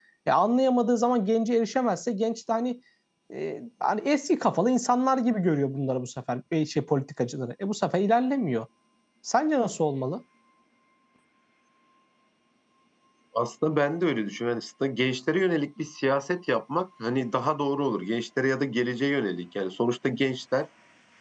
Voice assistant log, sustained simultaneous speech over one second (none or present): none